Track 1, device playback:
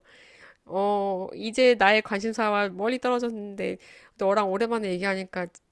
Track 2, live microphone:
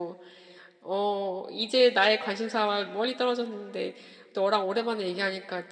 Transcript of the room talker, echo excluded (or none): none